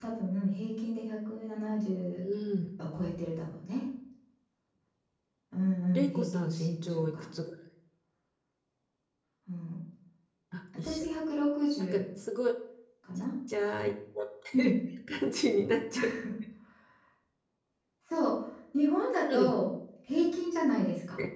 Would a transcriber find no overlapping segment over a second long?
No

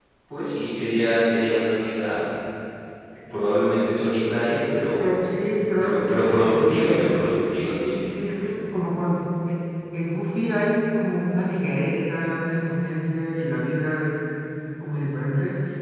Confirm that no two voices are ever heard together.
No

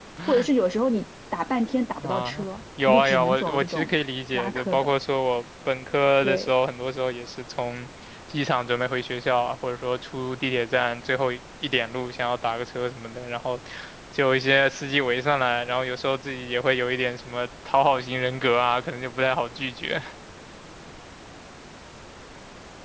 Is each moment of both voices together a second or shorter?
No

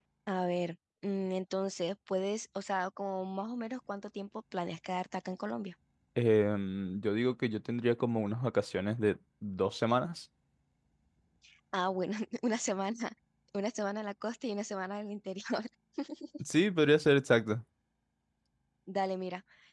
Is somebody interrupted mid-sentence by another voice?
No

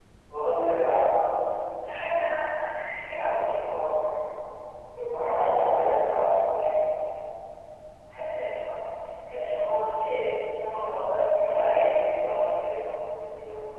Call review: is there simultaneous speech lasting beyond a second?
Yes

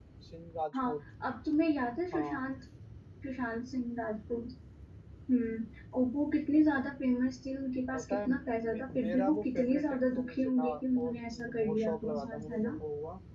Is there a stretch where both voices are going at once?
Yes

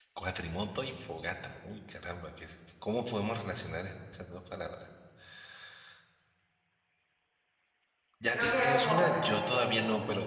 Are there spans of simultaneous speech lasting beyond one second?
Yes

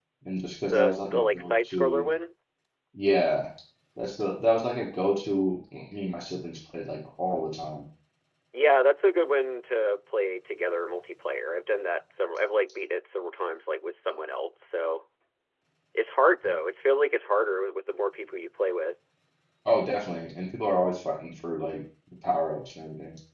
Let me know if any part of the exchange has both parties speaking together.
Yes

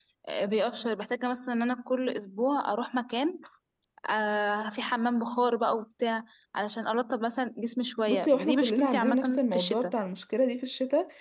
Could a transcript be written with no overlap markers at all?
No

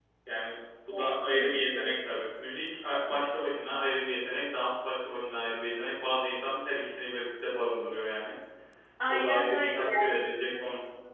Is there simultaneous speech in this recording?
Yes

